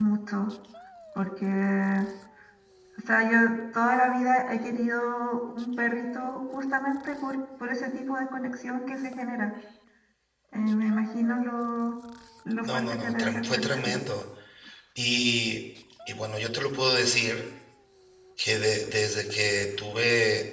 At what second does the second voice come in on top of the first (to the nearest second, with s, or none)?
13 s